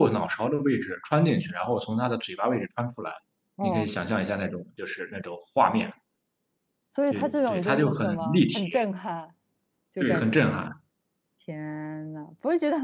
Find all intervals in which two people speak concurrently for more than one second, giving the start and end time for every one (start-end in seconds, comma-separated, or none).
7.1-8.7